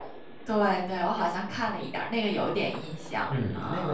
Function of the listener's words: taking over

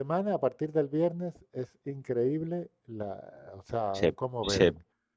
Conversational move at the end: taking over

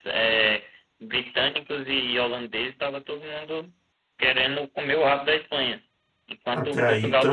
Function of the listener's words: taking over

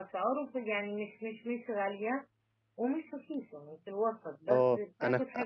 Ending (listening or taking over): taking over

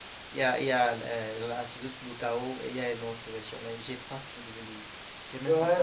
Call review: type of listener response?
taking over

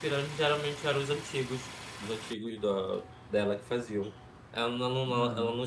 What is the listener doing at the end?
listening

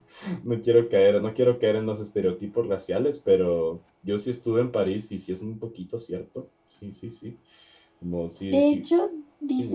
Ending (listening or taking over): taking over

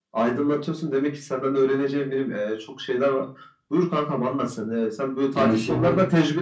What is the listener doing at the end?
listening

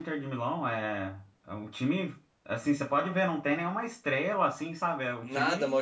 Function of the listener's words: taking over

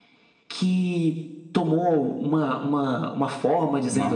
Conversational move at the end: taking over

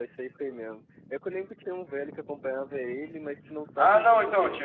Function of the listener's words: taking over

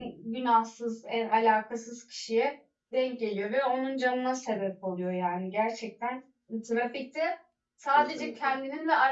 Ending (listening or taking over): listening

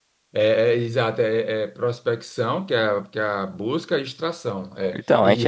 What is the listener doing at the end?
taking over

